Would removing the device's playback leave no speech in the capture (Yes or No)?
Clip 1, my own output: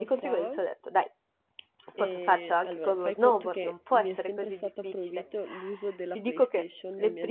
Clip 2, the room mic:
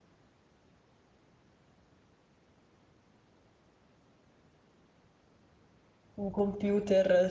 No